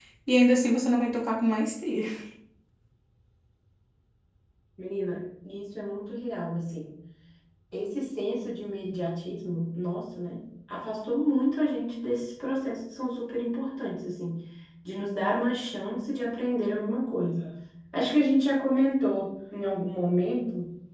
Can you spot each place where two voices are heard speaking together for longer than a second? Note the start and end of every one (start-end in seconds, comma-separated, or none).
none